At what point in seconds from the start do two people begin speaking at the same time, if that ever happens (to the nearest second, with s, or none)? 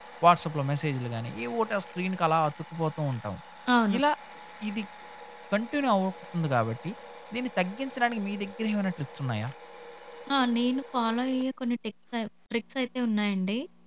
none